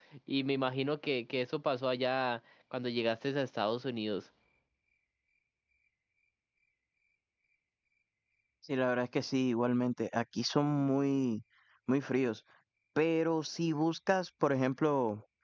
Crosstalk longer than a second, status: none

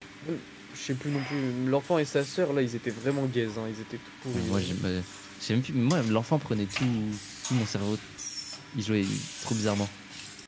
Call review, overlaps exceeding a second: none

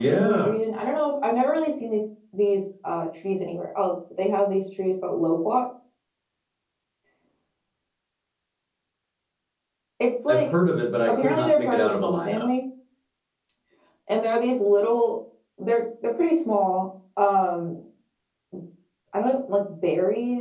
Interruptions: present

